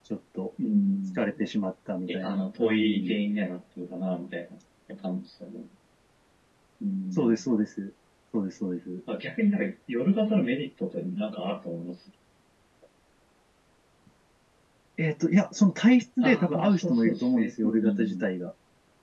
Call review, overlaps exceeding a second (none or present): present